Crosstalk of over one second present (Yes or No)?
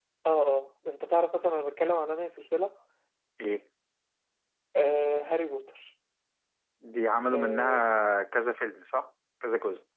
No